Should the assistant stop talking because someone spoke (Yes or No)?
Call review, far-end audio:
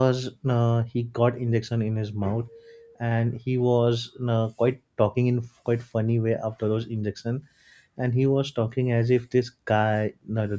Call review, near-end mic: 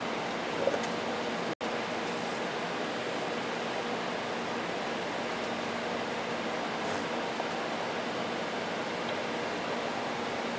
No